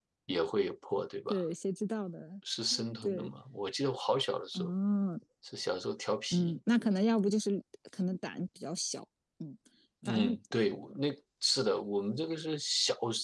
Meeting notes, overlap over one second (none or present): none